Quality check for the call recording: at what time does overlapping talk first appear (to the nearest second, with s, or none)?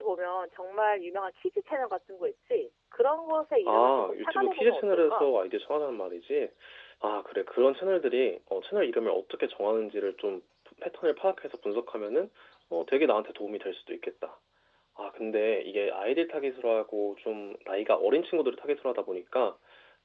4 s